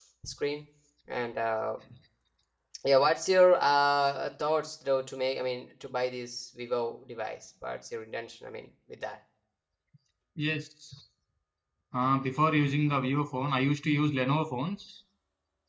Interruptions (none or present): none